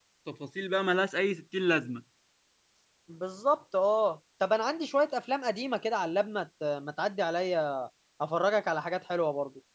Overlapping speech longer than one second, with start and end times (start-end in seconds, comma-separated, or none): none